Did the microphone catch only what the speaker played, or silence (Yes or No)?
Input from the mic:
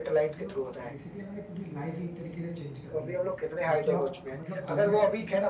No